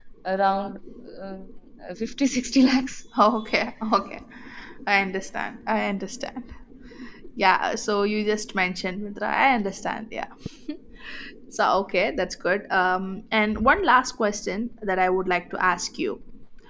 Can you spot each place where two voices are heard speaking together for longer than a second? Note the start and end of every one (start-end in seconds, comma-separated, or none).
none